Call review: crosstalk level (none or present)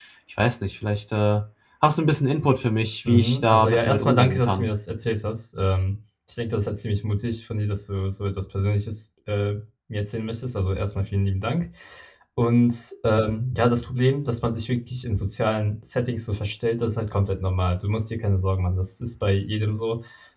present